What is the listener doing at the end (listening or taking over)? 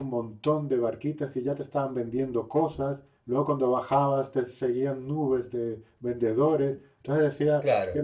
listening